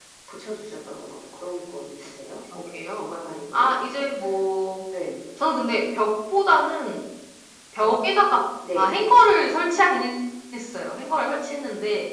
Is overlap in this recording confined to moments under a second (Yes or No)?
Yes